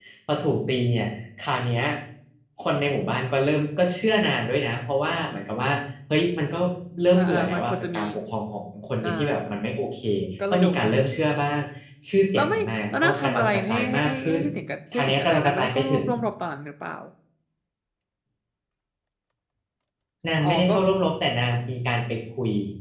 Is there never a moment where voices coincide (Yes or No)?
No